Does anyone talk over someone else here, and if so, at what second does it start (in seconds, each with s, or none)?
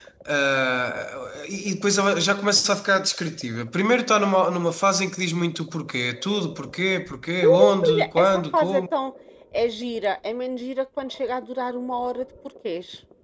7.4 s